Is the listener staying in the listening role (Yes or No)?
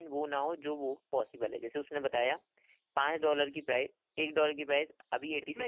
No